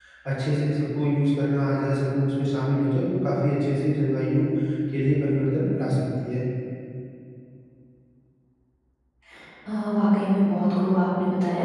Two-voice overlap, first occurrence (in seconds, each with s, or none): none